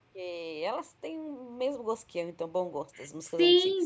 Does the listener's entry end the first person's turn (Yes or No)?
Yes